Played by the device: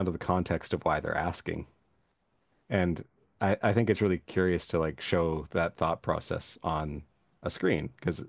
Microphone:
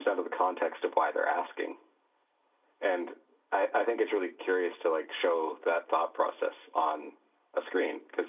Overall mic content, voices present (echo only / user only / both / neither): echo only